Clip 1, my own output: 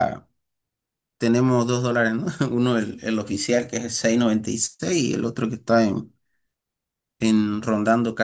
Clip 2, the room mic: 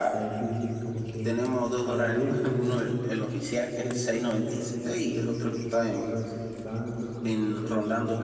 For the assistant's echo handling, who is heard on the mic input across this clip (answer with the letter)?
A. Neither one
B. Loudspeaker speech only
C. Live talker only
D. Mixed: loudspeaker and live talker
D